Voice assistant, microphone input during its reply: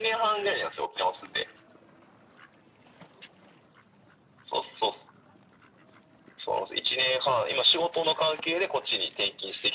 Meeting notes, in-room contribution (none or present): none